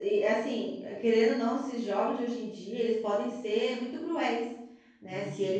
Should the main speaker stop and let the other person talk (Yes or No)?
No